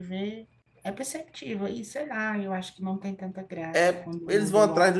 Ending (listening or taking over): taking over